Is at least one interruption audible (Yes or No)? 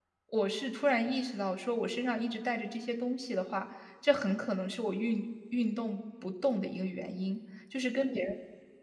No